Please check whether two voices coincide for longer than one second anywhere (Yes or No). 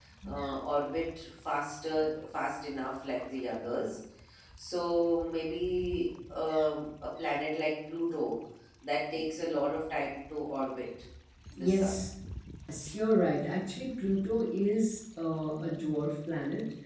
No